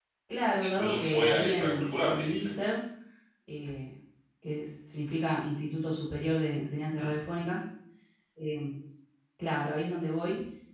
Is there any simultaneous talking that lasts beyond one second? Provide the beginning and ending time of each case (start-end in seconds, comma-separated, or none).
0.6-2.5